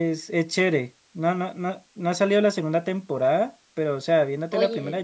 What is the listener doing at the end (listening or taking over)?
listening